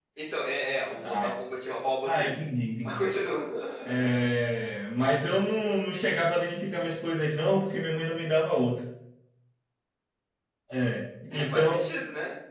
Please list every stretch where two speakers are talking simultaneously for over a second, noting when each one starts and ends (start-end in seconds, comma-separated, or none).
none